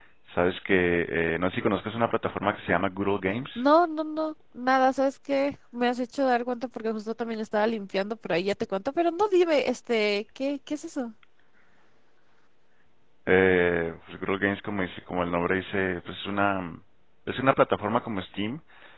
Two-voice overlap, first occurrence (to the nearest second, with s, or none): none